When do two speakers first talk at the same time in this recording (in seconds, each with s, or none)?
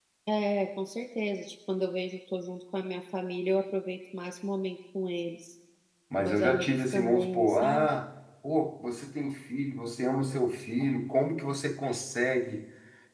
6.2 s